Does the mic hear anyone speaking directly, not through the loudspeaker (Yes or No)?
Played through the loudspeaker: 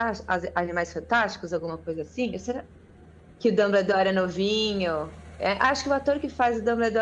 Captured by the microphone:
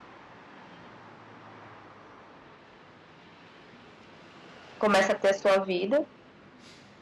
Yes